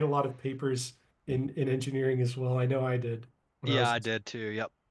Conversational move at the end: taking over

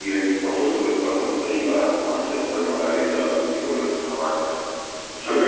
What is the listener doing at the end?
taking over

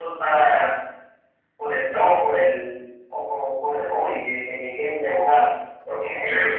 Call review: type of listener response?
listening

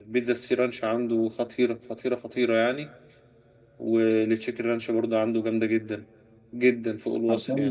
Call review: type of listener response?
taking over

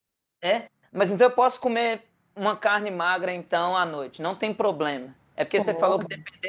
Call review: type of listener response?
listening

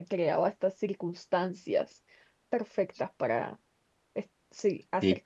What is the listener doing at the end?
taking over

